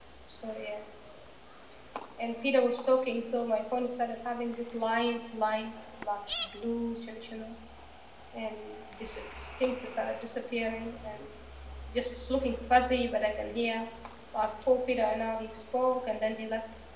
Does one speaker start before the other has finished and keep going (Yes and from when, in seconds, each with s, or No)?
No